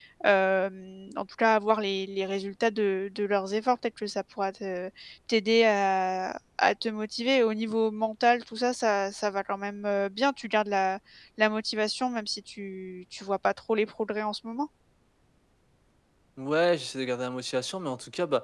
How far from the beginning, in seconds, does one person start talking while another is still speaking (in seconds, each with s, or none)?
none